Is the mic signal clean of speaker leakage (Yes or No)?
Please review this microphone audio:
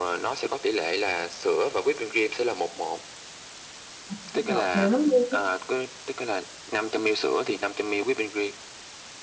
No